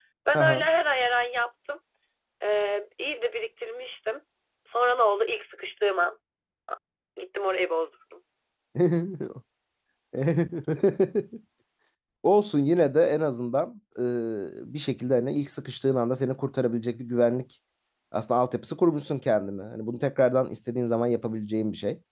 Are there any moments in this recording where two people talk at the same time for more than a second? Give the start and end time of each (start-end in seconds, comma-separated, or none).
none